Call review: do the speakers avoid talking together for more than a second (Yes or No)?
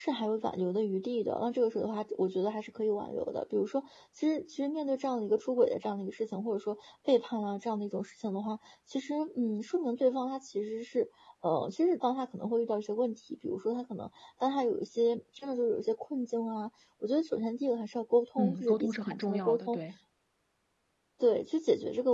No